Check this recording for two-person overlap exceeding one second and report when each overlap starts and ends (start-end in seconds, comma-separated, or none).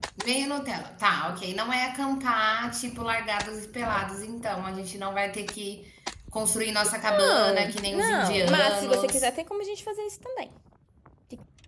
7.3-9.3